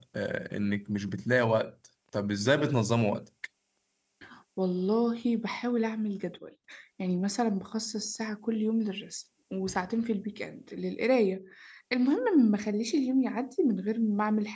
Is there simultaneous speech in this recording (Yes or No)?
No